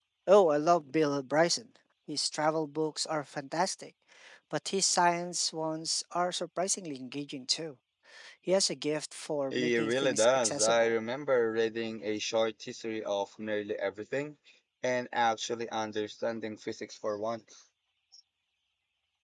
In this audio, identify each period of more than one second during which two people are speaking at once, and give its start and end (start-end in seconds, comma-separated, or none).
9.5-10.9